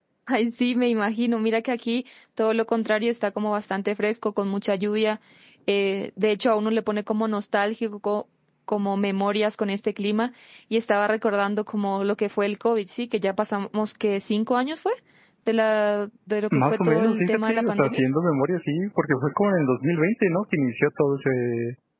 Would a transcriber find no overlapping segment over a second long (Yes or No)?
No